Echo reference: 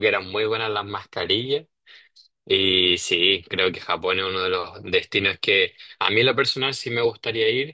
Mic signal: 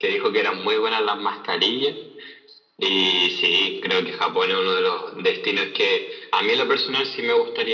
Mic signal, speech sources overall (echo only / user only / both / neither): echo only